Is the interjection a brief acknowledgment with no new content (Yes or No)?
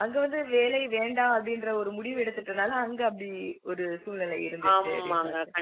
No